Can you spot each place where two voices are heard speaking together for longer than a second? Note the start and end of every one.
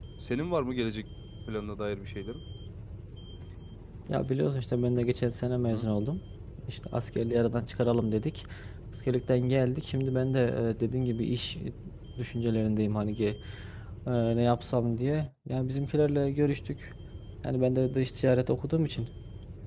none

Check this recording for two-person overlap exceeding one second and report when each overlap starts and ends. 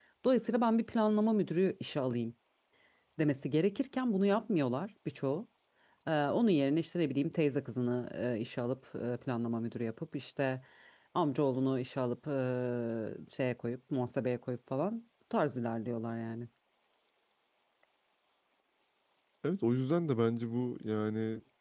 none

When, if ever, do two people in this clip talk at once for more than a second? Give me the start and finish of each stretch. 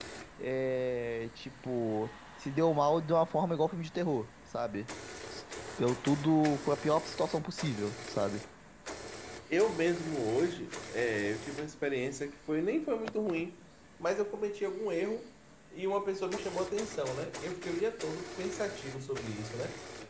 none

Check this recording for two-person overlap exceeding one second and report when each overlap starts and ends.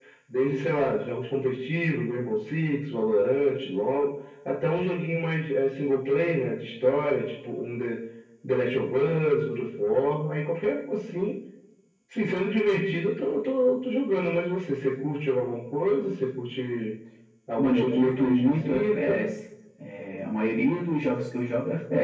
17.6-19.2

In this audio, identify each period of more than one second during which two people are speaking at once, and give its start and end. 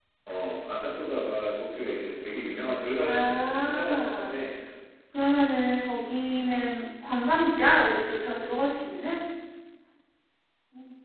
3.0-4.4

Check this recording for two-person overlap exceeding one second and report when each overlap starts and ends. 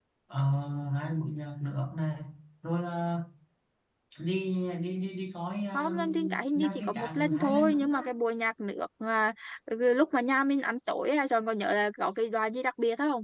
5.7-8.0

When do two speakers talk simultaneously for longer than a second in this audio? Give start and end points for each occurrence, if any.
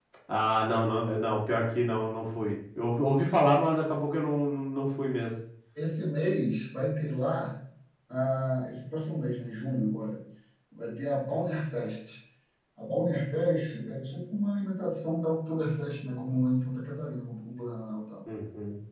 none

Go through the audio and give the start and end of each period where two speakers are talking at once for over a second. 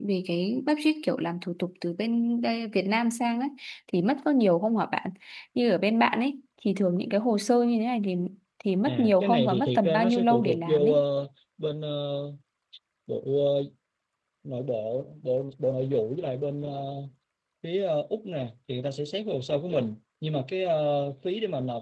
8.9-11.0

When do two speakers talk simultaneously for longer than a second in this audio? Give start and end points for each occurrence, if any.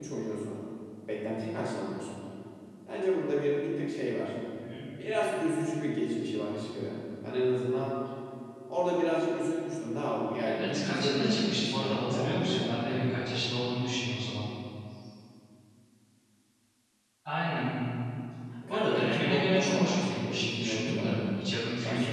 10.4-13.1, 18.7-21.2

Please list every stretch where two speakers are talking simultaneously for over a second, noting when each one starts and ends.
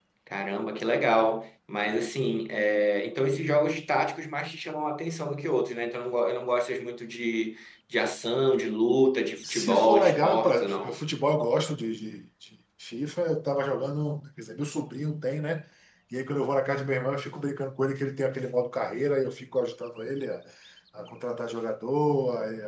9.4-11.0

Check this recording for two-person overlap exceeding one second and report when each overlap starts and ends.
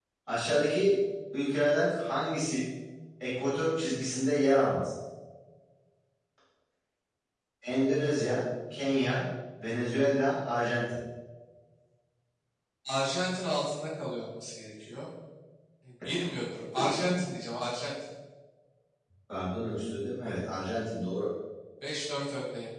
none

